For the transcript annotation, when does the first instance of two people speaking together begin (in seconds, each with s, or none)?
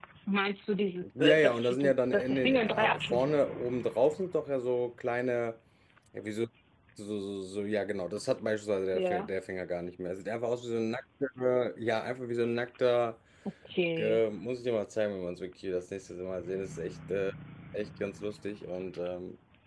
1.2 s